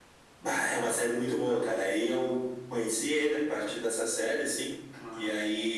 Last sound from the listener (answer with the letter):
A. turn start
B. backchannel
B